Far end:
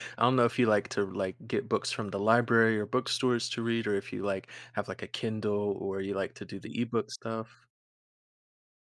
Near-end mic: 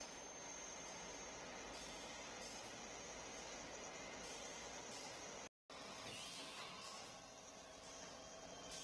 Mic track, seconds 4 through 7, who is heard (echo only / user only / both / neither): neither